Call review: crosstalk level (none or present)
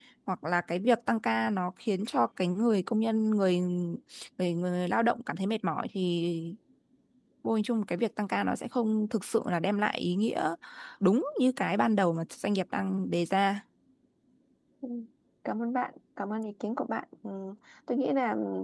none